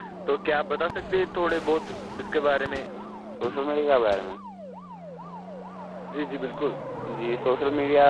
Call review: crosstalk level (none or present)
none